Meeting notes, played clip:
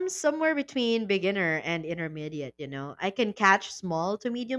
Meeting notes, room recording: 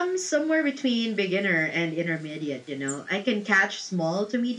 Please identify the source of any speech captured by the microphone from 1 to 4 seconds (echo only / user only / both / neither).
echo only